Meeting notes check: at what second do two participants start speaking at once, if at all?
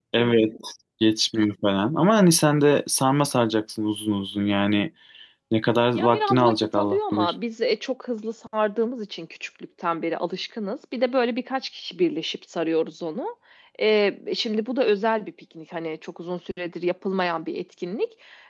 5.9 s

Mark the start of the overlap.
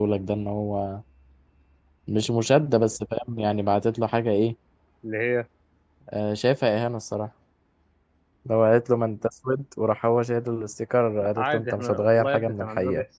11.2 s

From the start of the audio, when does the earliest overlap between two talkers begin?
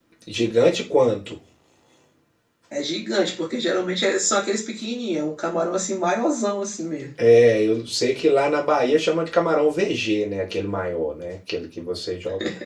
none

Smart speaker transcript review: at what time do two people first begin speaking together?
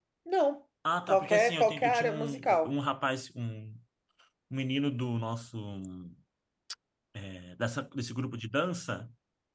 1.1 s

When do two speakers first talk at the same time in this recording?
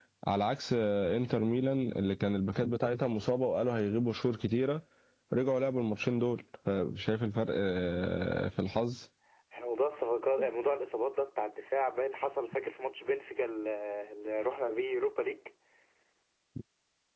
none

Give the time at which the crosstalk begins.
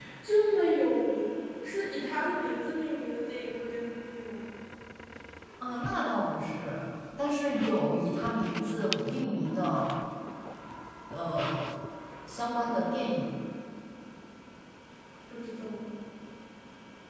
none

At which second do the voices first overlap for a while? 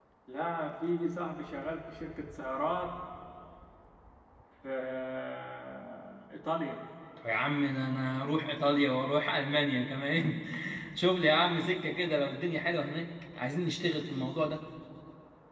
none

